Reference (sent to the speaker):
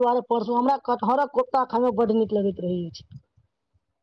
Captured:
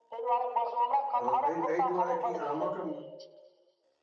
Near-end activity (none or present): present